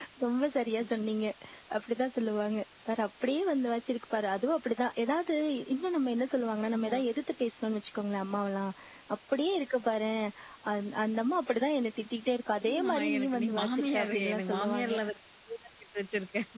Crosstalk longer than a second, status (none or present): present